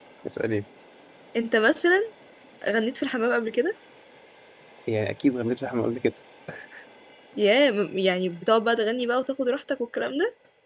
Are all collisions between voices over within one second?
Yes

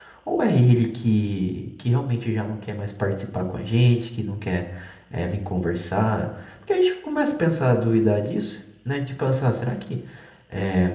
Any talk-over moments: No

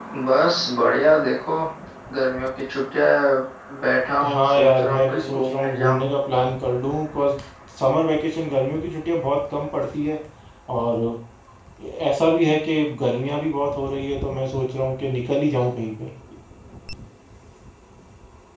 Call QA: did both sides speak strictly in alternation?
No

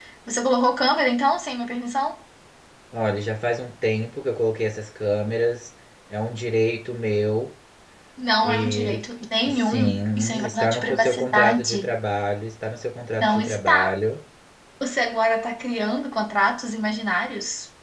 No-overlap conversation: No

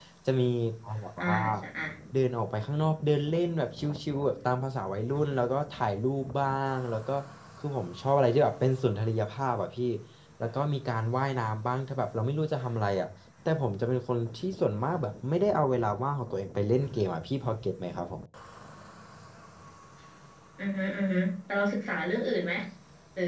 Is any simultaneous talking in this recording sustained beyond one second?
No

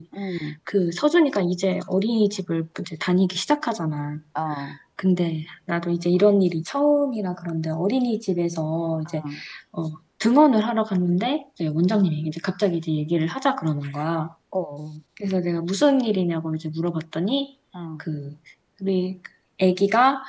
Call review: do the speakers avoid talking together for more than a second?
Yes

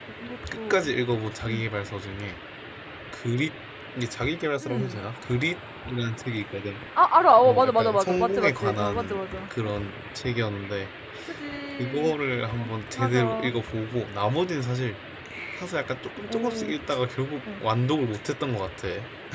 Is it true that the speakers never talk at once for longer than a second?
No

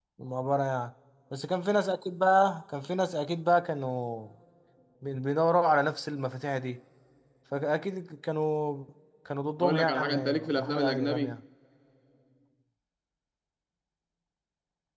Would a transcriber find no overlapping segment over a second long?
No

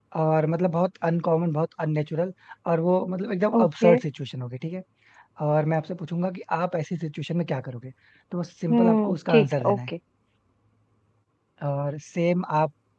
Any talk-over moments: Yes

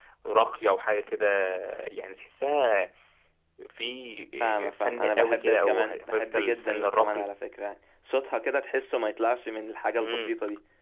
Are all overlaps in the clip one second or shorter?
No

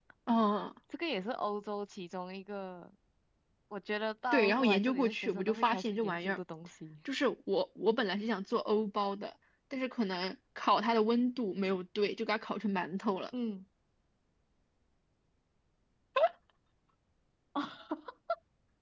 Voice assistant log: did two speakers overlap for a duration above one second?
Yes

